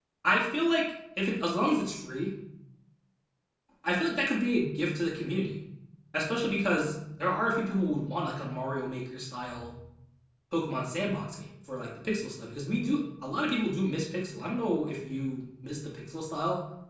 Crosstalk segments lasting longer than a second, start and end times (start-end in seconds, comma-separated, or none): none